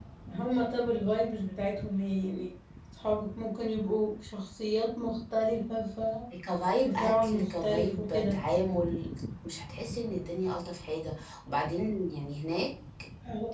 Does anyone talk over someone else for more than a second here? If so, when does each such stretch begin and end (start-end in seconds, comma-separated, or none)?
6.8-8.4